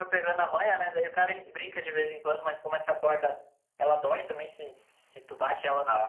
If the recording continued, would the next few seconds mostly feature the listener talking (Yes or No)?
No